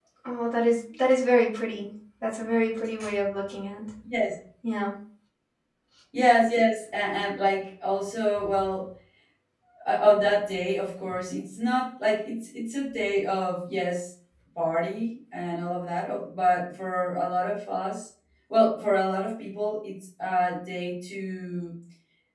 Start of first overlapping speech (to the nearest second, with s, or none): none